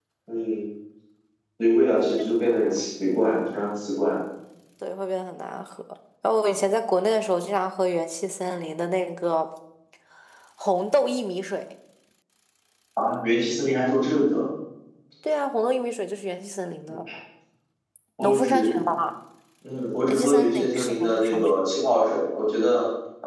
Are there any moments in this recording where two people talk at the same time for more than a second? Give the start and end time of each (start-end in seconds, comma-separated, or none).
20.1-21.6